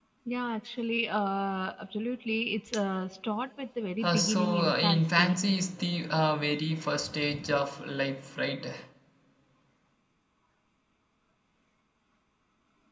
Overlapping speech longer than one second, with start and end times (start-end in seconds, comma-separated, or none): 4.0-5.4